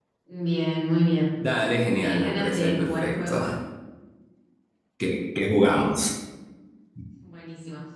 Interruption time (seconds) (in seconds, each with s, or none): 2.0 s